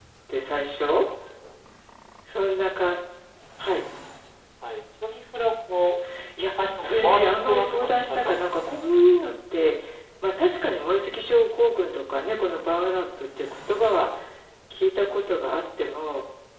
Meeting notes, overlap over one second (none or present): present